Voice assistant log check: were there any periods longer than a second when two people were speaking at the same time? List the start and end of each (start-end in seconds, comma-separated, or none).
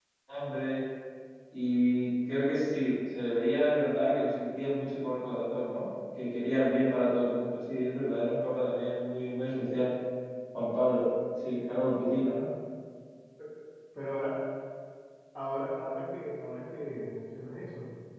none